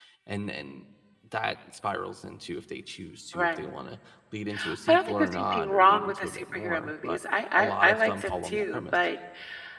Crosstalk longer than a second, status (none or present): present